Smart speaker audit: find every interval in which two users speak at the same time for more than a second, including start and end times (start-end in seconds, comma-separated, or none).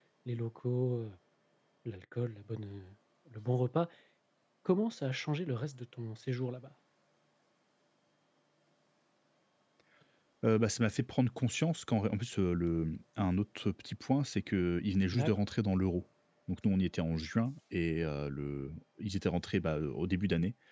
none